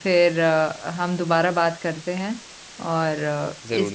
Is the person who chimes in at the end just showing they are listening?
Yes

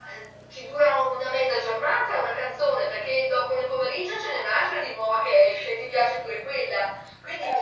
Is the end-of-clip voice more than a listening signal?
No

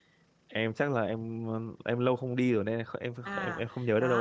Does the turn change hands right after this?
Yes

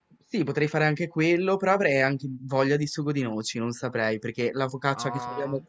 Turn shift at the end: No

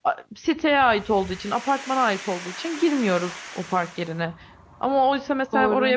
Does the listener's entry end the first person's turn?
No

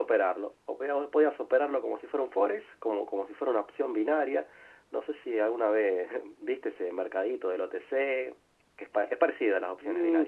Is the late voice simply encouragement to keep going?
No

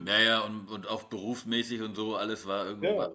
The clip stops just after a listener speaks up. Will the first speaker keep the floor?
Yes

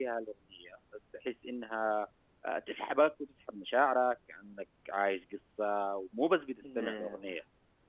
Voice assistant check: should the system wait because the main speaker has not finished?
Yes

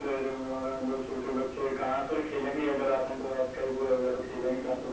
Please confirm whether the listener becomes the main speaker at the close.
Yes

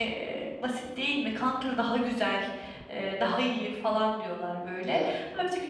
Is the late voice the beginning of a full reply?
No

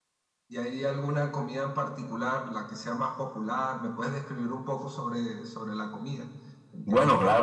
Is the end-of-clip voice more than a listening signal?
Yes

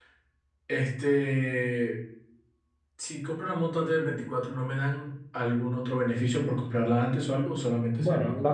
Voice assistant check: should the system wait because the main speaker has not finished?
No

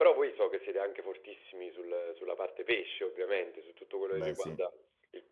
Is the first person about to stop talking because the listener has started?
No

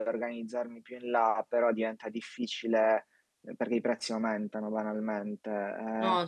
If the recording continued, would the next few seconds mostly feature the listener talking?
No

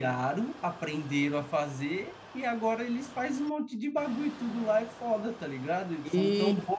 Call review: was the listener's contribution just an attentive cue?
Yes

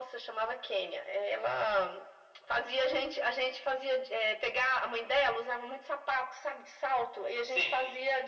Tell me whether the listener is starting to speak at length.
No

